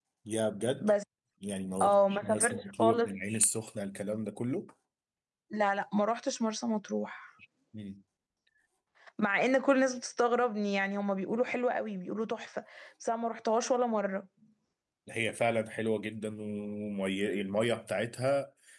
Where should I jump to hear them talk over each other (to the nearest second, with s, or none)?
2 s